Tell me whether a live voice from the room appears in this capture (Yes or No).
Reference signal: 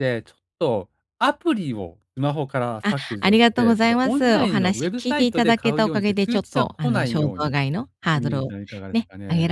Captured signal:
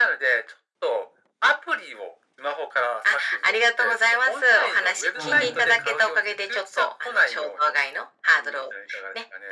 Yes